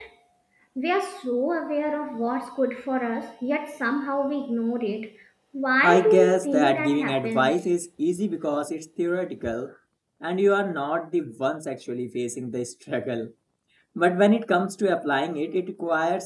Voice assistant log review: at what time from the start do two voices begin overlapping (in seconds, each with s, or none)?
5.8 s